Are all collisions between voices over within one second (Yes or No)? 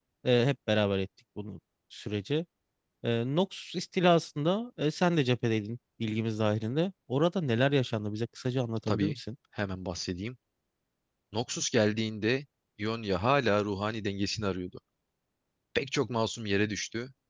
Yes